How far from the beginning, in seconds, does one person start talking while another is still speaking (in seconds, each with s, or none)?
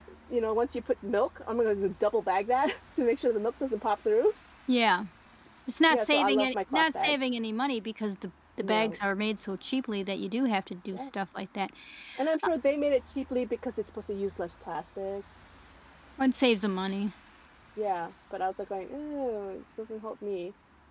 5.9 s